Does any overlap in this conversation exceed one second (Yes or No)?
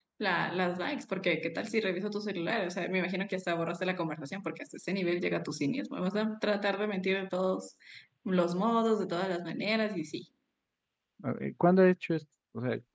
No